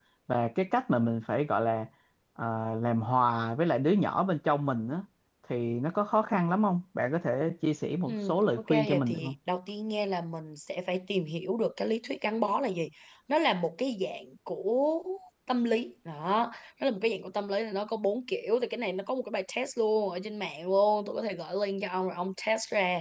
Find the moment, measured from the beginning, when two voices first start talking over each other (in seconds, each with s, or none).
8.1 s